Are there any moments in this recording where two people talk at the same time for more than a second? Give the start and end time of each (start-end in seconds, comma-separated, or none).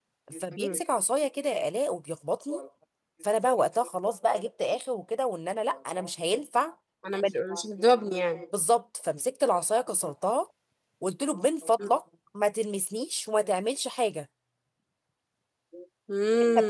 none